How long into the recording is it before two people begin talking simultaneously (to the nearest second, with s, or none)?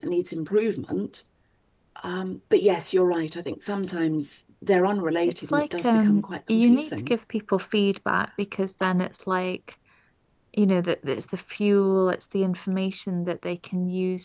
6 s